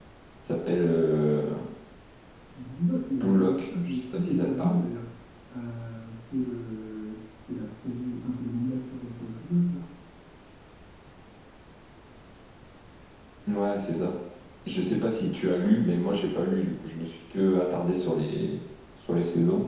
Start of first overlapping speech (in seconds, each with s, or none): 3.2 s